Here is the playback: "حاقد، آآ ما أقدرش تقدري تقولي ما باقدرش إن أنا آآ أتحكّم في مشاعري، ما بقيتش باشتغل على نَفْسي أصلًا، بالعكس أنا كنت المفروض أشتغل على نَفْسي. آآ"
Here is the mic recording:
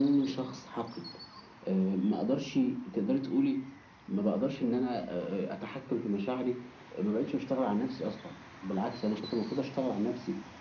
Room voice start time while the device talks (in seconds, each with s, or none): none